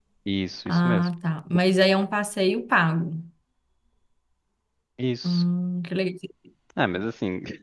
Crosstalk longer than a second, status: none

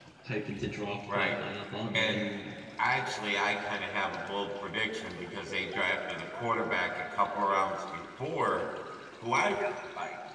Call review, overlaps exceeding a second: none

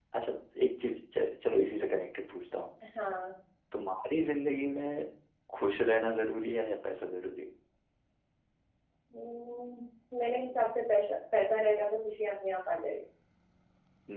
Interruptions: none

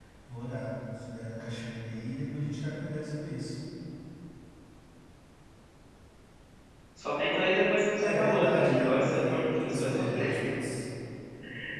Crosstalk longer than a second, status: present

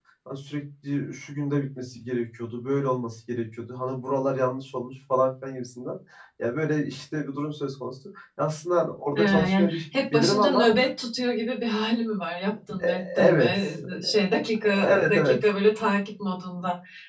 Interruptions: present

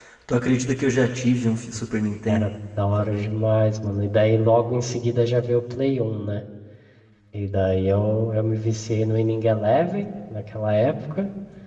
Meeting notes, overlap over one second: none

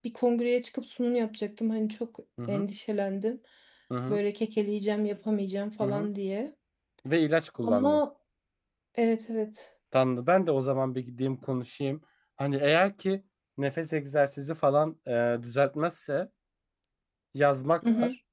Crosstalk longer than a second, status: none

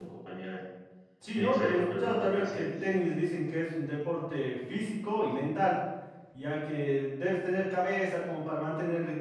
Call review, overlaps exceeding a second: present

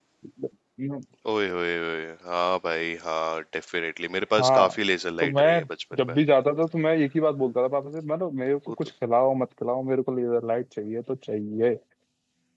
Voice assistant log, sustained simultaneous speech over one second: none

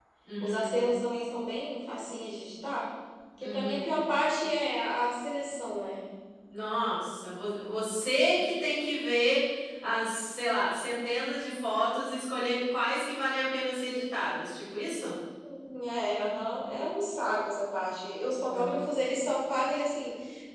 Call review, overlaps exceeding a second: none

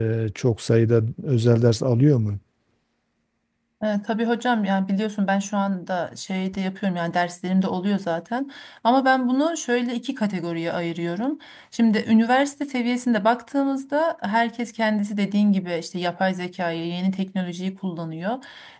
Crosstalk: none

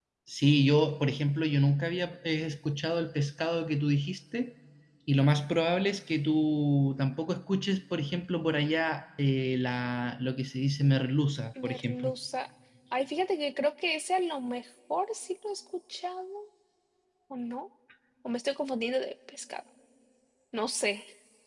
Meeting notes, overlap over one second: none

